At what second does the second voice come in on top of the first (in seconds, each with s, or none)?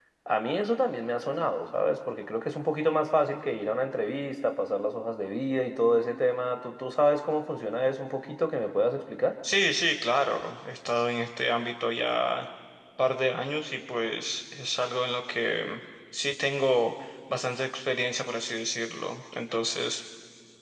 none